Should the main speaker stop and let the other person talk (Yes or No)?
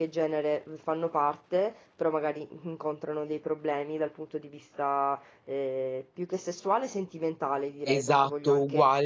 Yes